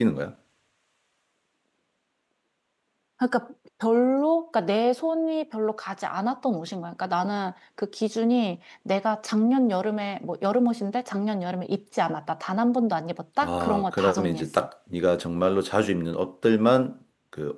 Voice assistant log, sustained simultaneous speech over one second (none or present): present